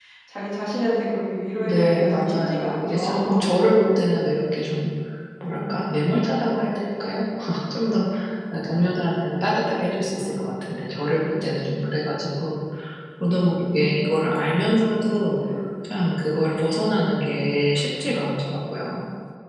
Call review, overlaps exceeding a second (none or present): present